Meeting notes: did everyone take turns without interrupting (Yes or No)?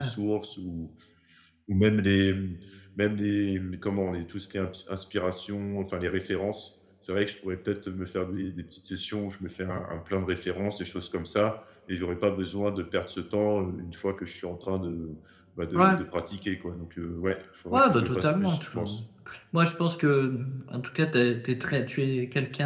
No